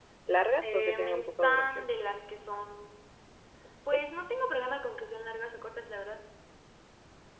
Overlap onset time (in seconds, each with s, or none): 0.6 s